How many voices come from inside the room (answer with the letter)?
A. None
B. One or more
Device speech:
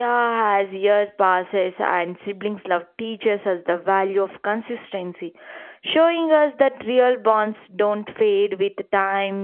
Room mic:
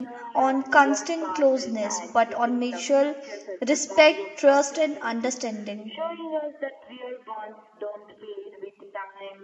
B